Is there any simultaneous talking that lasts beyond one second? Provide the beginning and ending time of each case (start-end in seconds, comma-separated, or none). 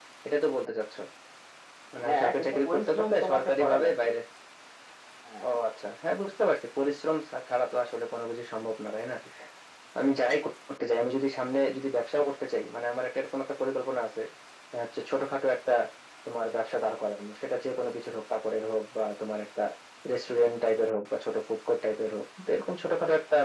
2.0-4.1